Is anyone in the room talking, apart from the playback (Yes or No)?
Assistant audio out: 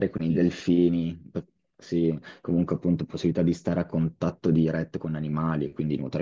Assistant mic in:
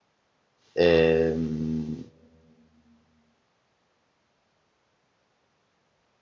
Yes